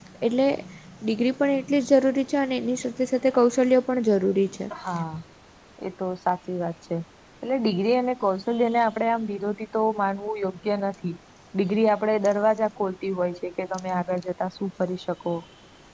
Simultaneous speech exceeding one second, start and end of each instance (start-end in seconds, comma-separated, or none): none